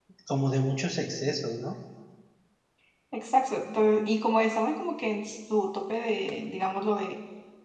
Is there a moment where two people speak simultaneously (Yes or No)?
No